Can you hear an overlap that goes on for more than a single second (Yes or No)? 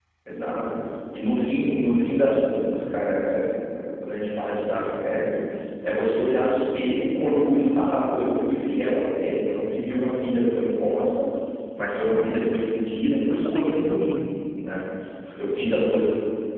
Yes